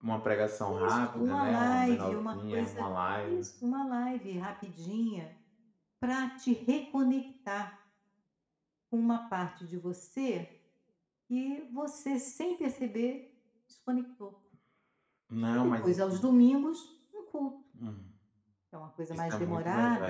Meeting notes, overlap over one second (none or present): present